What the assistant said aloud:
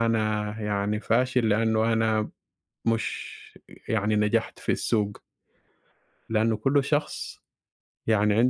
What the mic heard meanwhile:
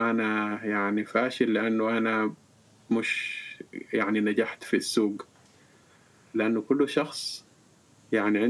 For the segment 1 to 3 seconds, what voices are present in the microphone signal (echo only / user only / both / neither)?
echo only